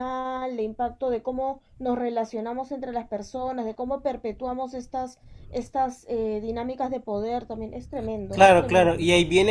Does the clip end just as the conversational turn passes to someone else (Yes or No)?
Yes